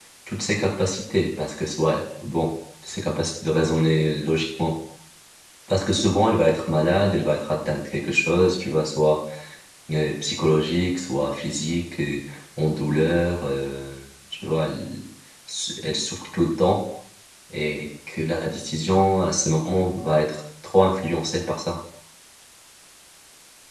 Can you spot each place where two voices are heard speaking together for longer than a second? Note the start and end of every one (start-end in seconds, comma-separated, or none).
none